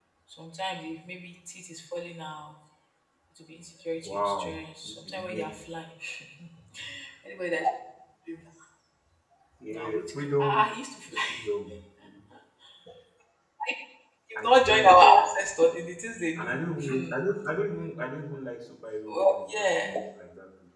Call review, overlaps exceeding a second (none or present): present